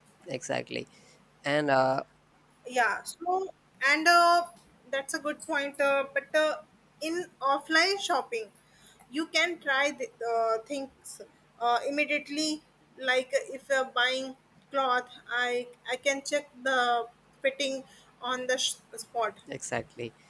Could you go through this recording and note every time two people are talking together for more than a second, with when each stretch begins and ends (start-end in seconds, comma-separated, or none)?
none